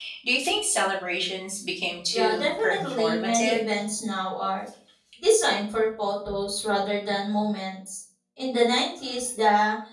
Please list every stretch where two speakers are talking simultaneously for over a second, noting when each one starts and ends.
2.1-3.7

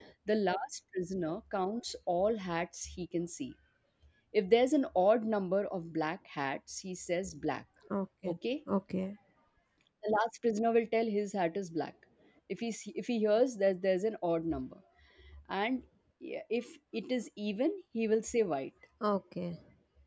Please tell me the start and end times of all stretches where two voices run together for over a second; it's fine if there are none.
none

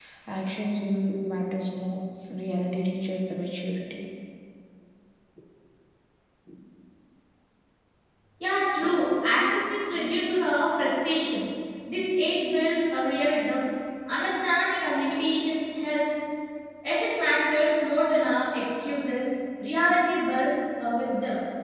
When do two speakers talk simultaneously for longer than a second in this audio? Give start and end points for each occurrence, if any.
none

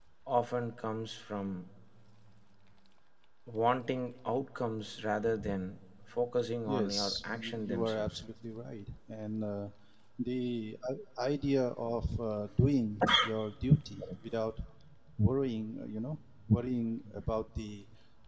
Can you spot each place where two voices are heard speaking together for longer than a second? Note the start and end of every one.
6.7-8.2

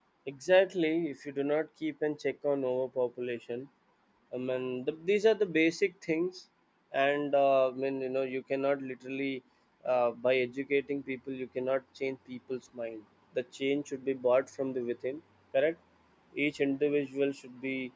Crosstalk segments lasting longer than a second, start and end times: none

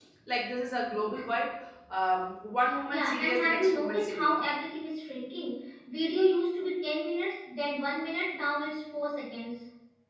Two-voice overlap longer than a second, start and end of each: 2.9-4.5

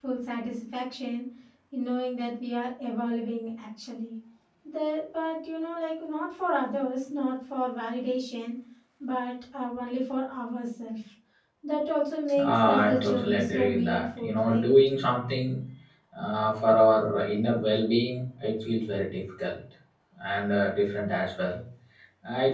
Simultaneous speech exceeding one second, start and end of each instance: 12.4-14.7

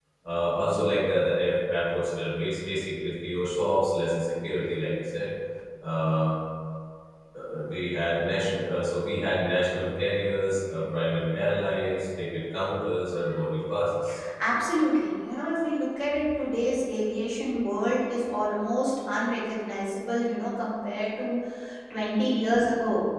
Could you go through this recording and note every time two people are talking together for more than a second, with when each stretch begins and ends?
none

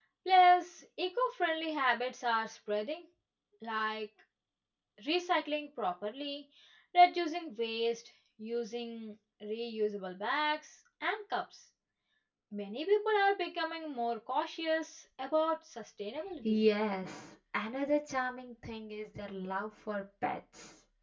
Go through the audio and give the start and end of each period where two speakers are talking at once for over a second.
none

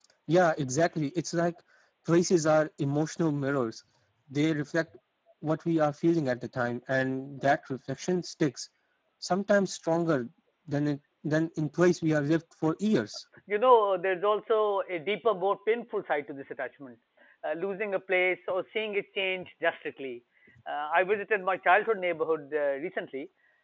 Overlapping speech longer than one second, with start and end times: none

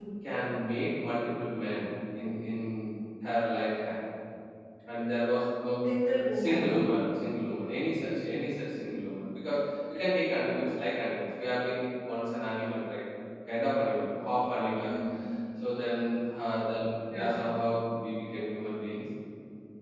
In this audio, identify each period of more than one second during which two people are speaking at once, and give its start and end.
none

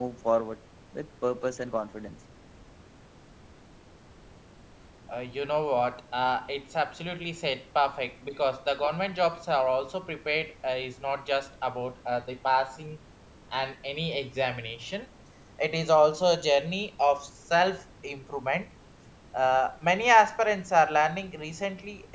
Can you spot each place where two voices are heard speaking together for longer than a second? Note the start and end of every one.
none

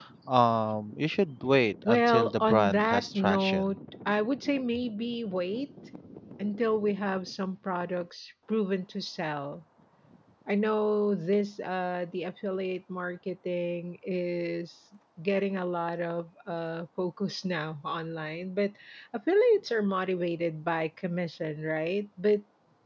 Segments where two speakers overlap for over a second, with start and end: 1.9-3.7

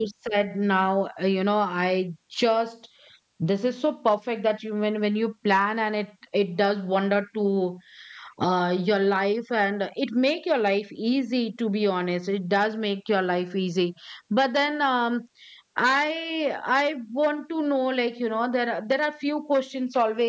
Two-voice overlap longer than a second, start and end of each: none

